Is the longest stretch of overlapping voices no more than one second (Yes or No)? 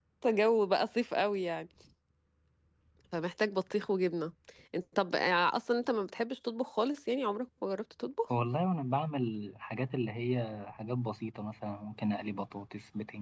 Yes